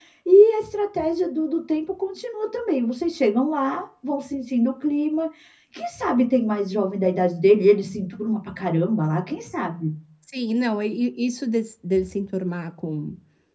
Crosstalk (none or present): none